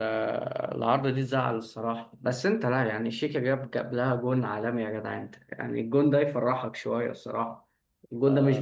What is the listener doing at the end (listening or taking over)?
taking over